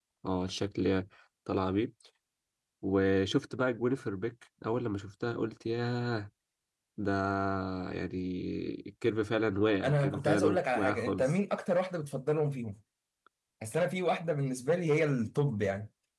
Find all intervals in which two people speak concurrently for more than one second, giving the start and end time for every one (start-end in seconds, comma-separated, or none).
9.8-11.3